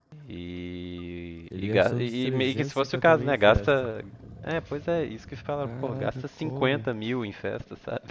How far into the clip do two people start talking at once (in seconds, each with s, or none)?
1.6 s